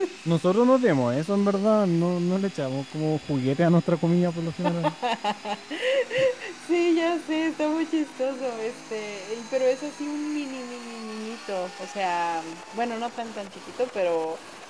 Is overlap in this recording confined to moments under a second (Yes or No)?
Yes